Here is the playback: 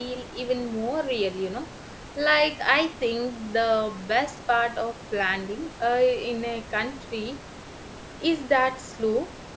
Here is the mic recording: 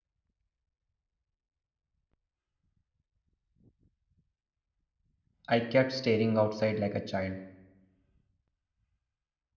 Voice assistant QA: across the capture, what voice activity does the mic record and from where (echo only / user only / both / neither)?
user only